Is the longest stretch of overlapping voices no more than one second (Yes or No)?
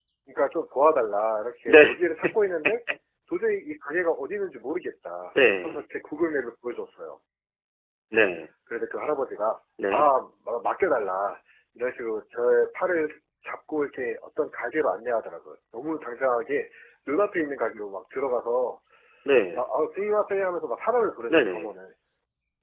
Yes